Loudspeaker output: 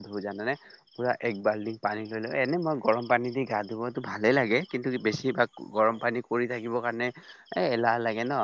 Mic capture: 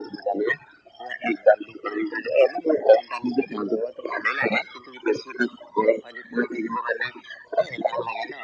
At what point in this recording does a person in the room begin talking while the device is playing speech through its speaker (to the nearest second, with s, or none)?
none